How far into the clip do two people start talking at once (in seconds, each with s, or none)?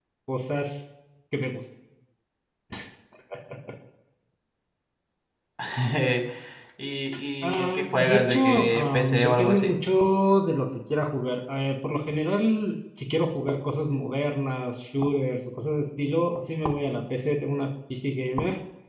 7.6 s